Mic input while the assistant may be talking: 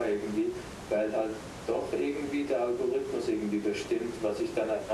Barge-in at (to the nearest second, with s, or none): none